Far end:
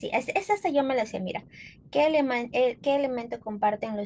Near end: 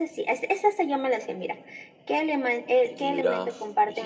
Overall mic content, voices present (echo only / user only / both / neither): both